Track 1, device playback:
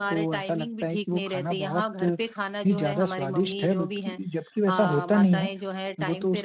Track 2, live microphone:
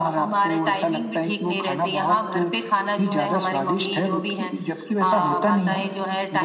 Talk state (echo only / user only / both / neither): echo only